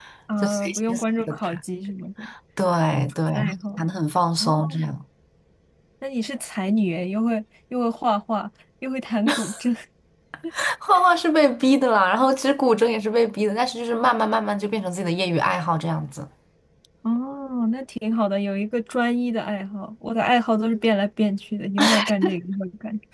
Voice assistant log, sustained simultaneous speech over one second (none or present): present